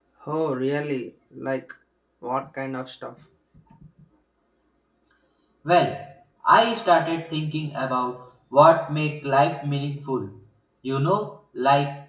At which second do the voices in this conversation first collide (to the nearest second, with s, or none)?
none